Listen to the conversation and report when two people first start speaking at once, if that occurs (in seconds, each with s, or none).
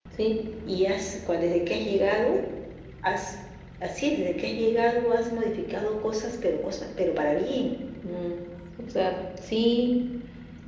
none